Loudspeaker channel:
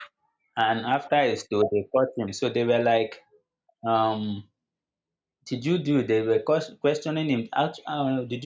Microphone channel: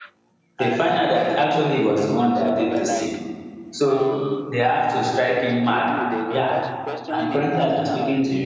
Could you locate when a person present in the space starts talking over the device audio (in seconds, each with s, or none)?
0.6 s